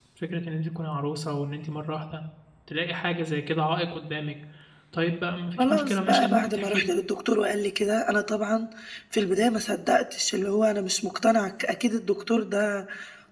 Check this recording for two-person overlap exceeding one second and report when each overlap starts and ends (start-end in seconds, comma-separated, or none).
5.6-6.9